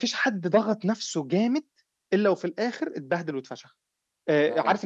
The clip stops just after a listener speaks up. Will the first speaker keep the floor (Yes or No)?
Yes